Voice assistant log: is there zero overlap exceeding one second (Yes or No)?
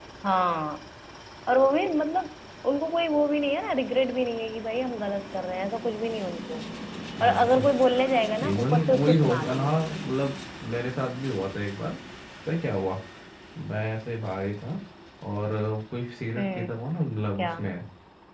No